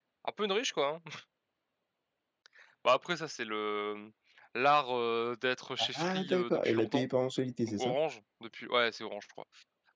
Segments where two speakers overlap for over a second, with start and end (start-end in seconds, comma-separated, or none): 5.8-7.1